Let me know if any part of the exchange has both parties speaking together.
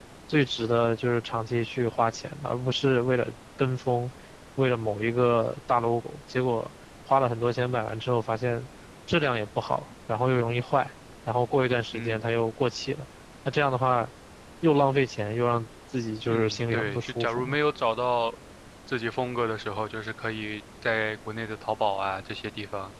Yes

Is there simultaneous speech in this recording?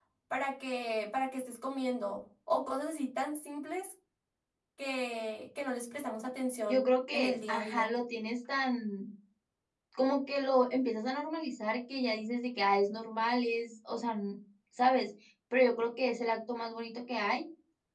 Yes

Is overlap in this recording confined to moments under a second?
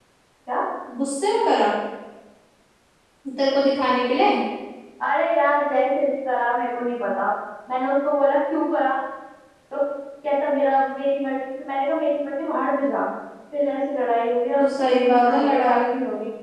No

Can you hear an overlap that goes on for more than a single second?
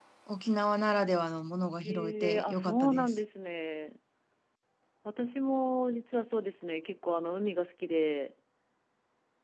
Yes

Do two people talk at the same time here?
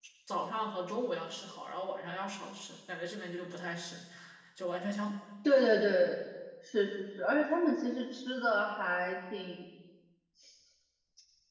No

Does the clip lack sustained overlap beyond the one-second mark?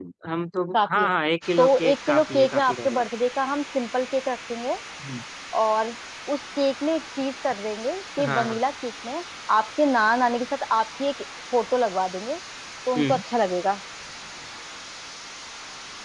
No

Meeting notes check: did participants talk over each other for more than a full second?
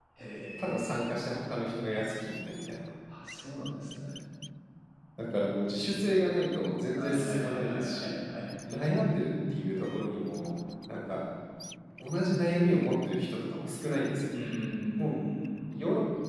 Yes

